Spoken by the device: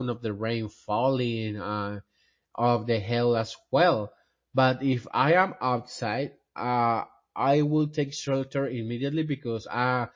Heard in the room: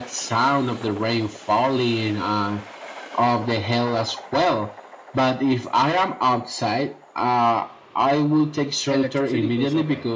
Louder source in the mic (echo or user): echo